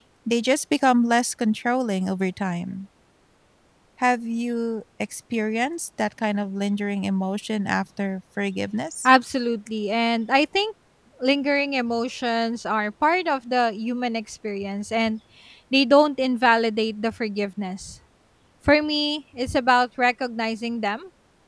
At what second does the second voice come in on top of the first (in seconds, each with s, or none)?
none